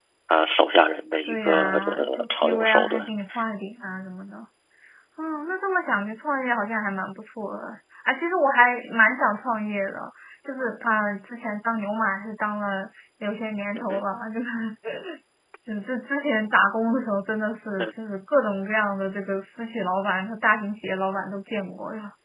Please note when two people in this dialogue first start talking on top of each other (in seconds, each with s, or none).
1.3 s